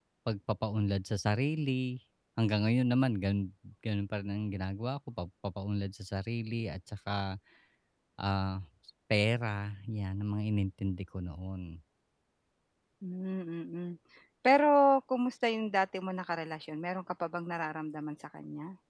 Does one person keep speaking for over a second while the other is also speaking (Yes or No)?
No